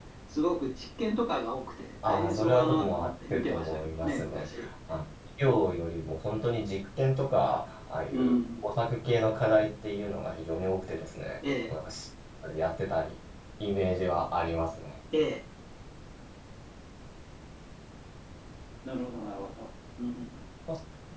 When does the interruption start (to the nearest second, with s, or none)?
2 s